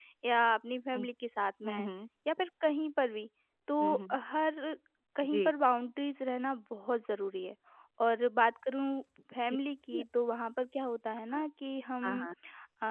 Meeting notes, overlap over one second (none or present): none